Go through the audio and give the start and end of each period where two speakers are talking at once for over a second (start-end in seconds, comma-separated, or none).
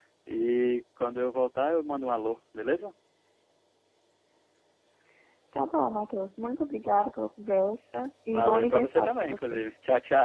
8.3-9.6